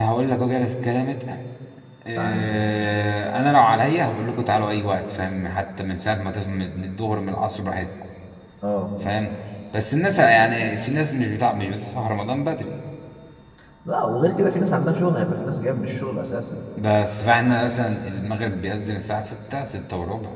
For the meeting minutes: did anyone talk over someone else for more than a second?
No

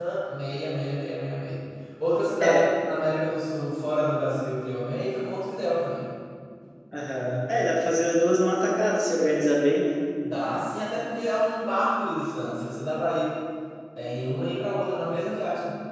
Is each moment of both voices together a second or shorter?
Yes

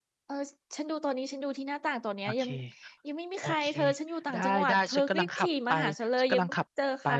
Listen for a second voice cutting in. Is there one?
Yes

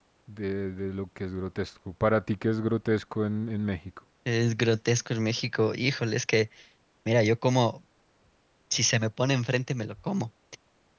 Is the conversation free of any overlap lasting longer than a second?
Yes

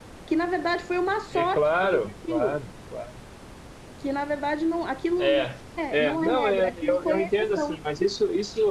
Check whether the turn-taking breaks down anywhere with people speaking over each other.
Yes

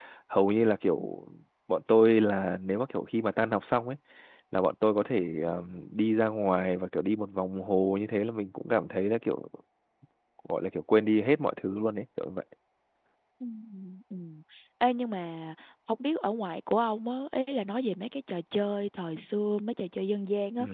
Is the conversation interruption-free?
Yes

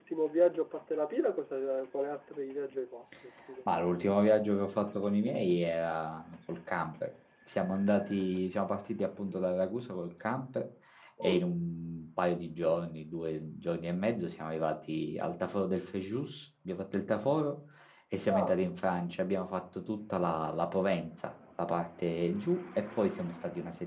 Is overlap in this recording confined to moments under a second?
Yes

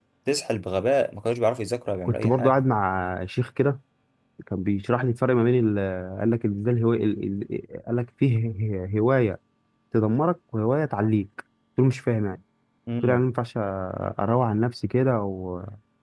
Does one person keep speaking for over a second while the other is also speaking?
No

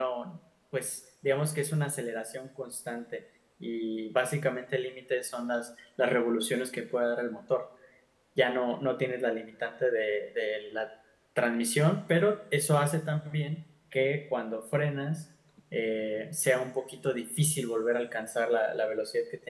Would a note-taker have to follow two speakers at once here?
No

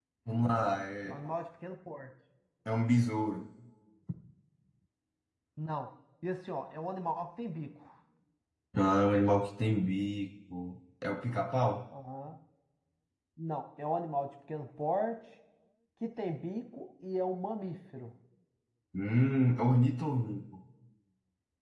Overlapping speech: No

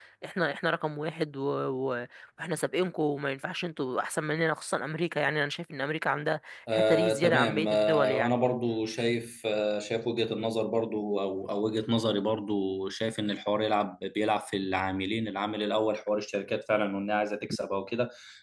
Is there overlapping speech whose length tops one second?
Yes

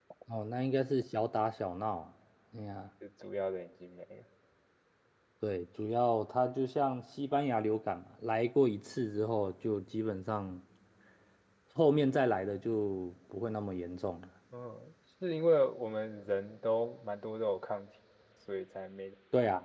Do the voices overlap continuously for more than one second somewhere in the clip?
No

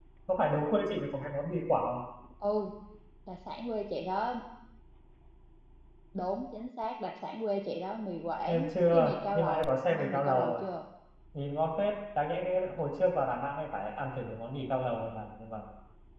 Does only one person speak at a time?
No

